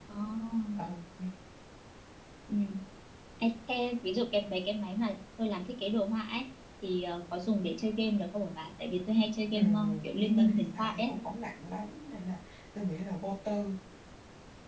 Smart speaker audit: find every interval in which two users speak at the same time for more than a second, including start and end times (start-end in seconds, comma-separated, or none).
9.5-11.1